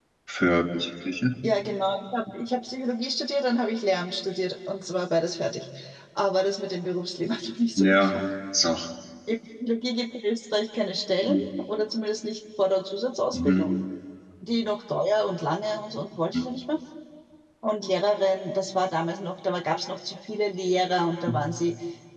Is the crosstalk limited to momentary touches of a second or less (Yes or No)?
Yes